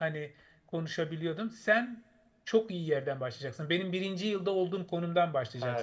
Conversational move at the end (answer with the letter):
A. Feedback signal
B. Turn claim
B